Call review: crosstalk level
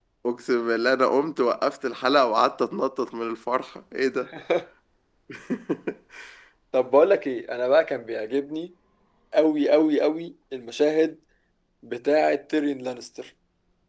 none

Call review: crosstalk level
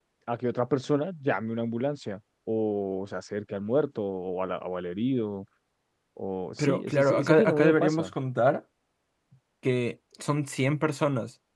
present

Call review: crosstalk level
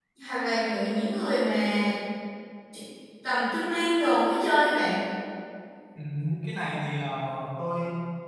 none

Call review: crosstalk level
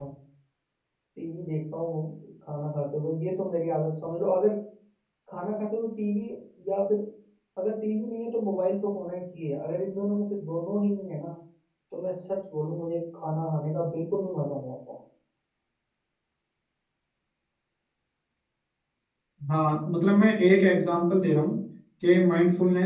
none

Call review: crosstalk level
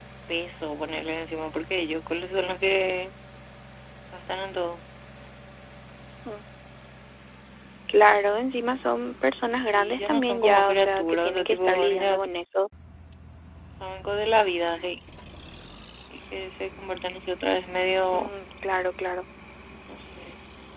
present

